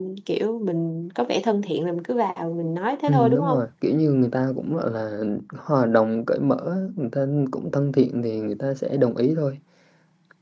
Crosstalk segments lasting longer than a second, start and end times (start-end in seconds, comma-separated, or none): none